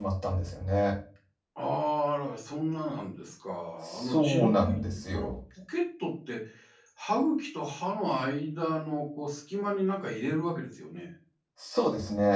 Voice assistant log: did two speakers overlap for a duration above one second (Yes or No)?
Yes